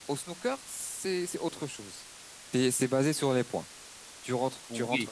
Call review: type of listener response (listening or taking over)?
listening